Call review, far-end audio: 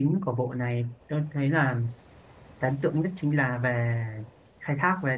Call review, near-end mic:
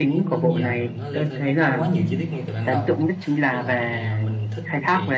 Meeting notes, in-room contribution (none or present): present